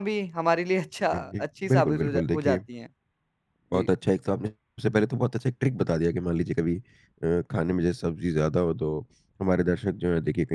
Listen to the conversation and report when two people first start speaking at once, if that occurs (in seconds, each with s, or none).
1.1 s